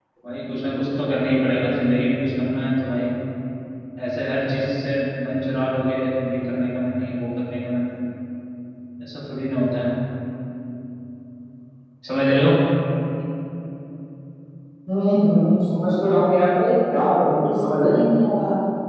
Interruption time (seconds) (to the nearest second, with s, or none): none